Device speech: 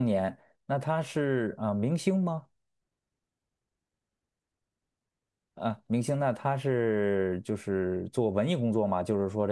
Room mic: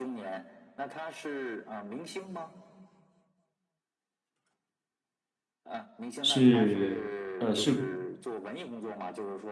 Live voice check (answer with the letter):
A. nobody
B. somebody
B